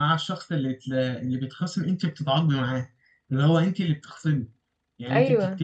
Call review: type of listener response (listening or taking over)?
listening